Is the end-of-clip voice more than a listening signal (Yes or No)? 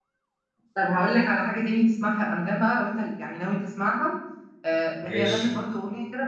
No